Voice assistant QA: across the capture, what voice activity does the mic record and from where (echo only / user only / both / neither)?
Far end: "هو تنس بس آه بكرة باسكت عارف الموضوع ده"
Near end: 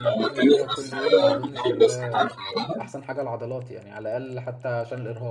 both